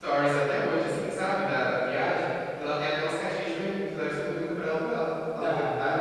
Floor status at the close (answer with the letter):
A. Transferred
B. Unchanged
A